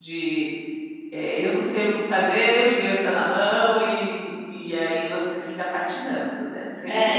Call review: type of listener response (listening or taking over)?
taking over